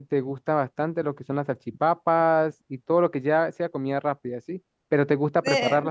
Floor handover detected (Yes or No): No